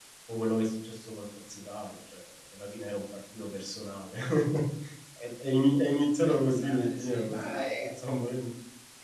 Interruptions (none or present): present